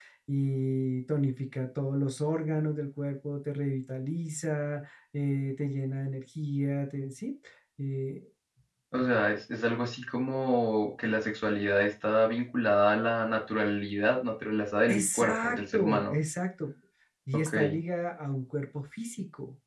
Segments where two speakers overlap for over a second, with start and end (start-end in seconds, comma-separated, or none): 14.9-16.2